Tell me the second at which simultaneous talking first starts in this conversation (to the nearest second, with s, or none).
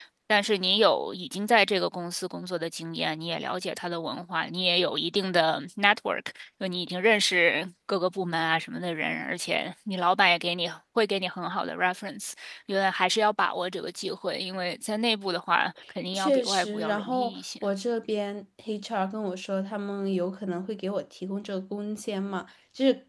16 s